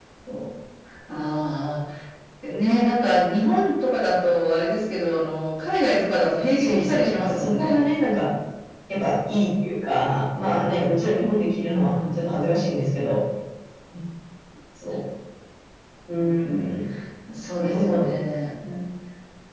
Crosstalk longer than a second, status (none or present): present